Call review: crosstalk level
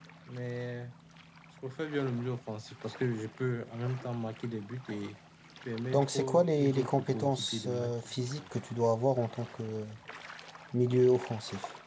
present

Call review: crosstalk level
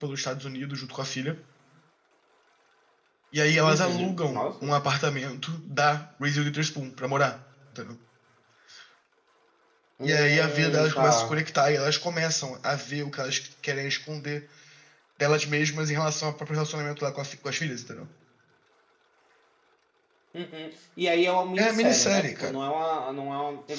present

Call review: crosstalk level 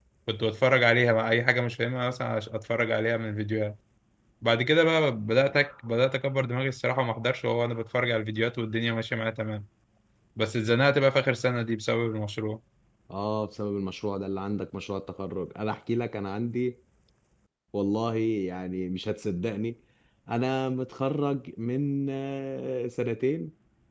none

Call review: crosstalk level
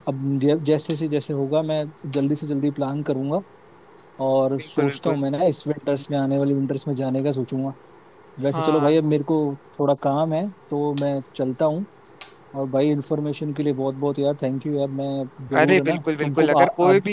present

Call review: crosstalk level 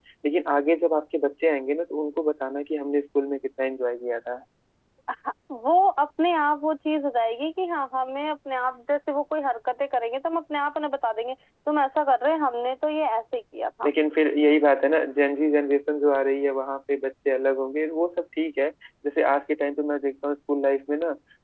none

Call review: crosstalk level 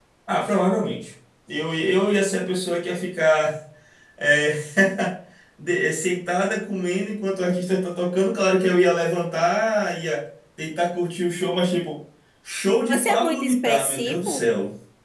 present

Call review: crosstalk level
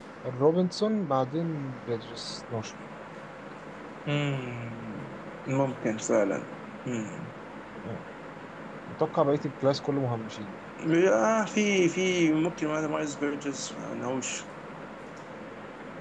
none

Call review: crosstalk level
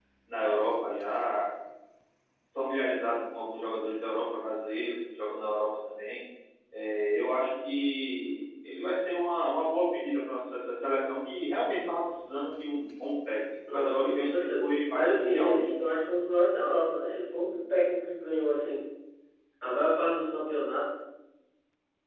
present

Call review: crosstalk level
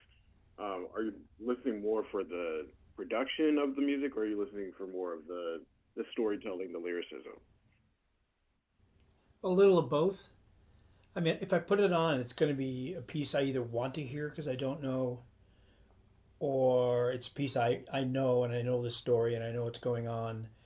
none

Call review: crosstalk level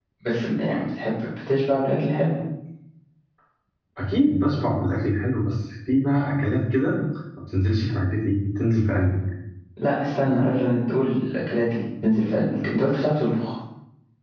none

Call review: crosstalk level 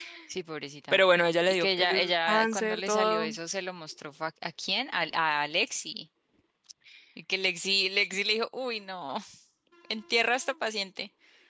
present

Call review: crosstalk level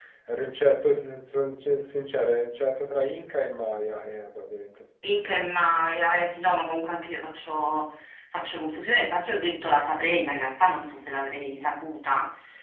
none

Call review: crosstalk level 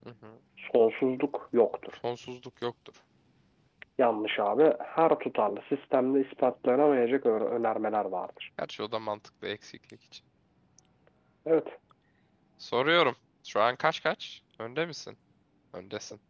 none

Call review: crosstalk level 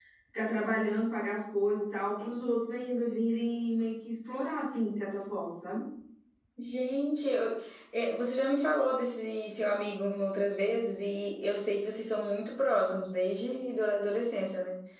none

